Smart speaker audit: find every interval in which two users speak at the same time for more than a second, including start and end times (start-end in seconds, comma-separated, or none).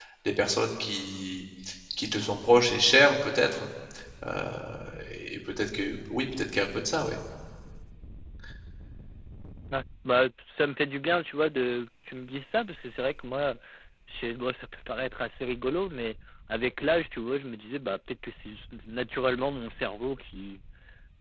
none